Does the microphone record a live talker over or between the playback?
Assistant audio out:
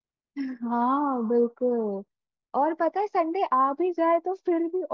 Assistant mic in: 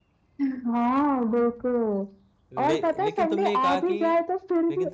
Yes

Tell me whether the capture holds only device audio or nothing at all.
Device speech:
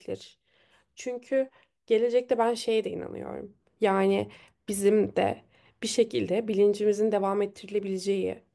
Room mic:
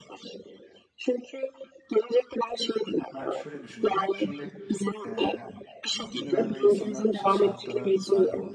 No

